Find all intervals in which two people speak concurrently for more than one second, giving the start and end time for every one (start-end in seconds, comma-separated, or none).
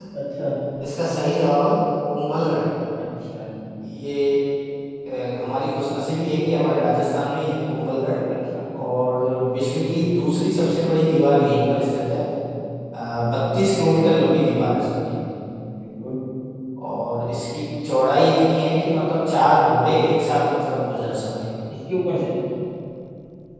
none